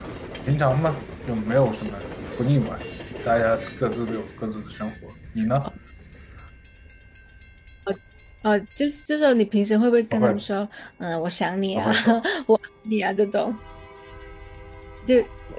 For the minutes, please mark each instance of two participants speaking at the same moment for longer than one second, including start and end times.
none

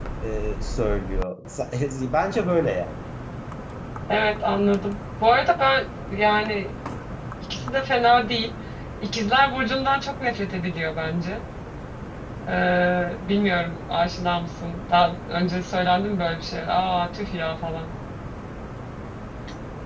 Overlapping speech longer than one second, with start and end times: none

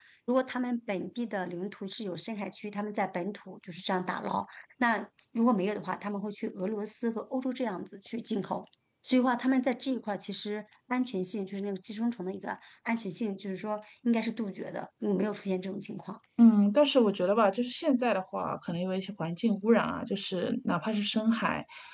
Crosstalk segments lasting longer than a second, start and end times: none

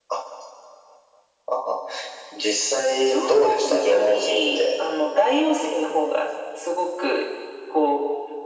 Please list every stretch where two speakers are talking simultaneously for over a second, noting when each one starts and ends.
2.7-4.6

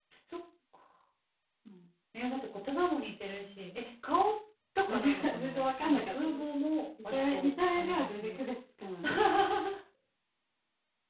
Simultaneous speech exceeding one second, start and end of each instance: 4.9-6.4, 7.1-8.4

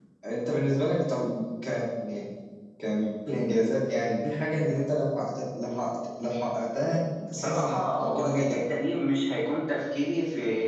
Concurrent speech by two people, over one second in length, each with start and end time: 7.3-8.6

